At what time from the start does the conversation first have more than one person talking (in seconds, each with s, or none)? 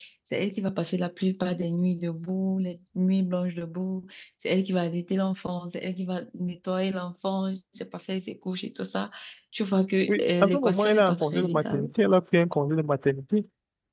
10.1 s